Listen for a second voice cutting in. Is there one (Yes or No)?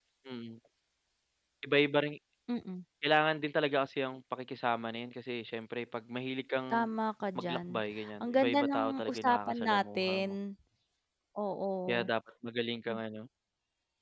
Yes